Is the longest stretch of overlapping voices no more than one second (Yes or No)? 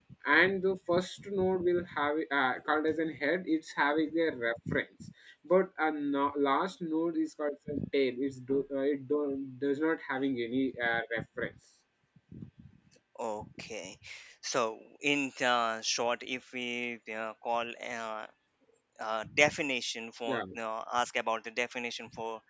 Yes